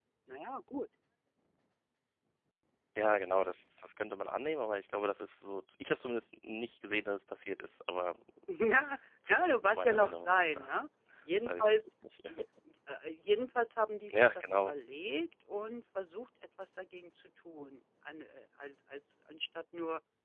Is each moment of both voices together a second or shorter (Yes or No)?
No